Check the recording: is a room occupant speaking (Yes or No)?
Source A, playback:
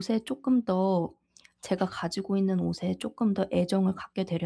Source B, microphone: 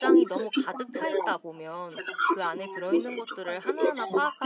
Yes